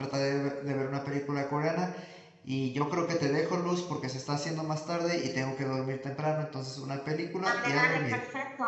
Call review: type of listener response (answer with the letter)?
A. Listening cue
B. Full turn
B